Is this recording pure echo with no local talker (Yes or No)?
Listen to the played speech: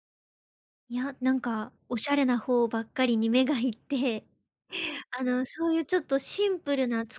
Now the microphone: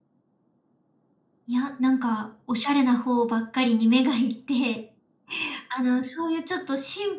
Yes